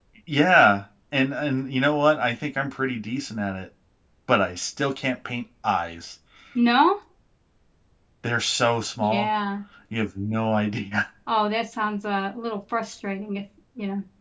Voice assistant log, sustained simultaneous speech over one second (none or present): none